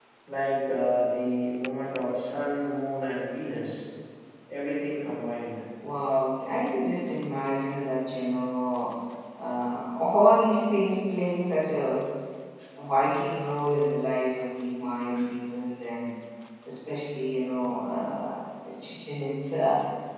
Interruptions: none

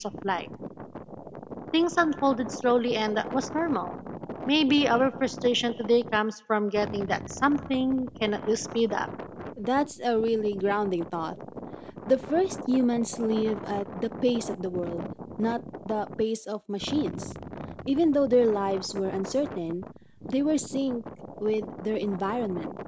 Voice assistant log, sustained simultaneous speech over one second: none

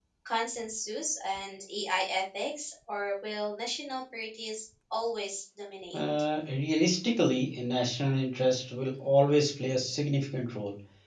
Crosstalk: none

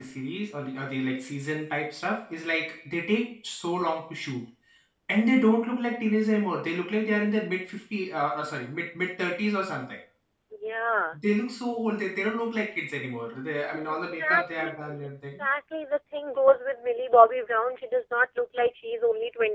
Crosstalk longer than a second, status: present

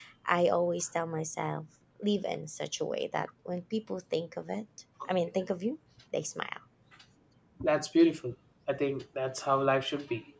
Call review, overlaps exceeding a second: none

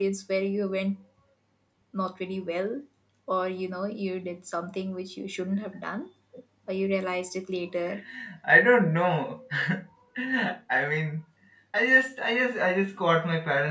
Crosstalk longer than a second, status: none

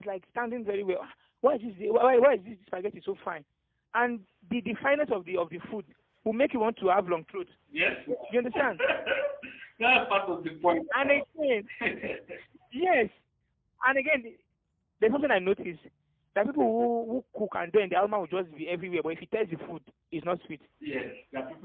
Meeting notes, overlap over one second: none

